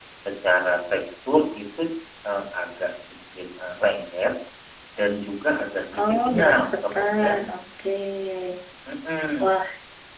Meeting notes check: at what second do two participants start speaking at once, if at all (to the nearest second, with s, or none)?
6 s